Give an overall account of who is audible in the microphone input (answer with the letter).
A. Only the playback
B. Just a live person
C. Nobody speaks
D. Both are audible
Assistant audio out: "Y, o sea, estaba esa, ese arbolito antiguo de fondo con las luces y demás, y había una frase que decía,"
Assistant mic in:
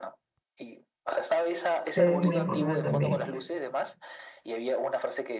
D